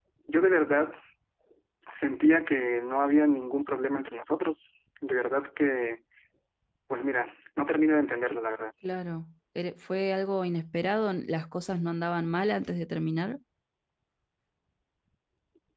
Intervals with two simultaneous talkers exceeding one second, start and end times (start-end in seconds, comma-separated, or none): none